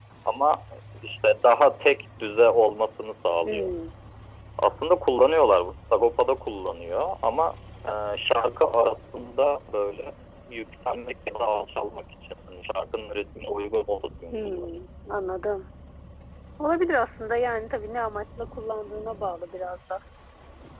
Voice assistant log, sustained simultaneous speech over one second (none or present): none